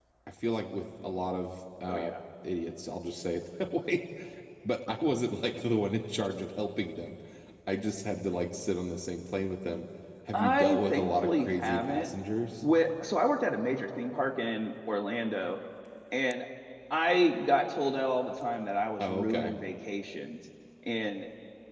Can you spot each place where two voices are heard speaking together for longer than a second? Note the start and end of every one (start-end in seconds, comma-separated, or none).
10.3-12.1